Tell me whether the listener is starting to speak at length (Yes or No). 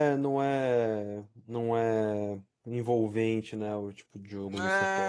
Yes